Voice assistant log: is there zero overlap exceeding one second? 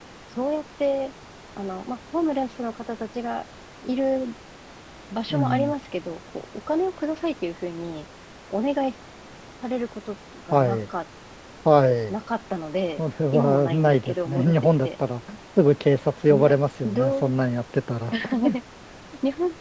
No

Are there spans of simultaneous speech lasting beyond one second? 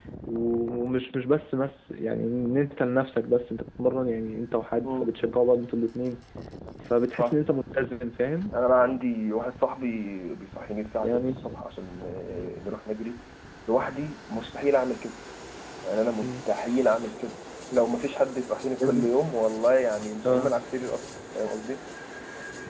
No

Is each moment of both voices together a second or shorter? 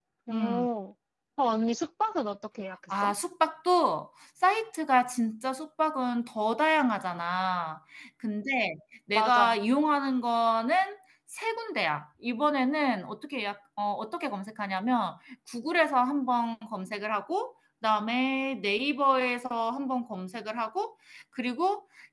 Yes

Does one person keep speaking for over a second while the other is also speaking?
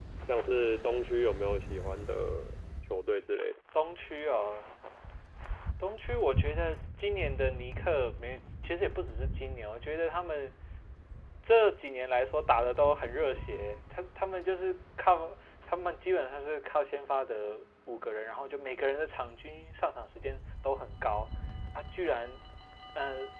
No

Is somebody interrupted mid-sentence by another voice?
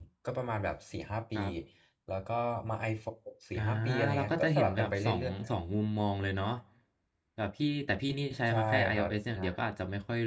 Yes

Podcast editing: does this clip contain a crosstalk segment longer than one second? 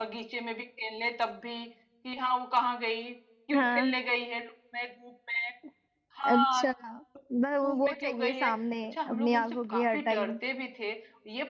Yes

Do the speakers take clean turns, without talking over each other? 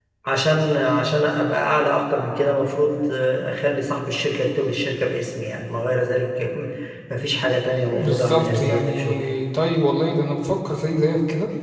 No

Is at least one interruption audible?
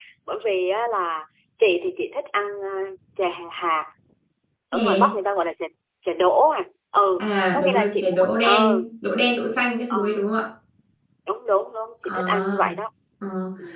Yes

